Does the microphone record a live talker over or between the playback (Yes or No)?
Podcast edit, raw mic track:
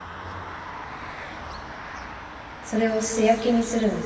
Yes